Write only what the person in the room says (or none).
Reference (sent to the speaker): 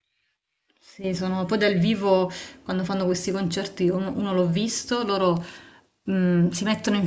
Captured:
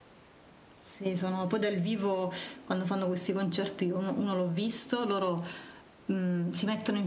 none